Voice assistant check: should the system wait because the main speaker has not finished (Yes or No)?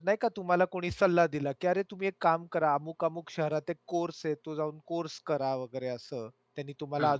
Yes